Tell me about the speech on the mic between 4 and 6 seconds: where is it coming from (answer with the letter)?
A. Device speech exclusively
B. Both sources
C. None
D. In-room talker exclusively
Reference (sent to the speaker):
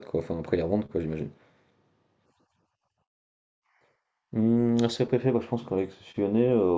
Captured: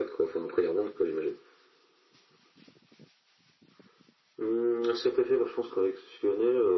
A